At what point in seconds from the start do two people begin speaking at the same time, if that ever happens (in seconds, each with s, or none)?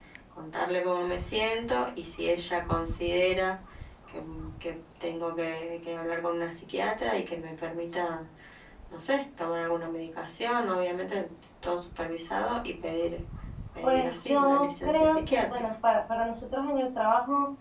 13.8 s